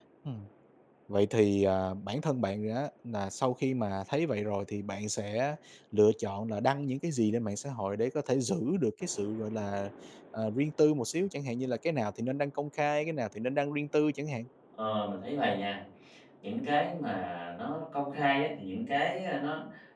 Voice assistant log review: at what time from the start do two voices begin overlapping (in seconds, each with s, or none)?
none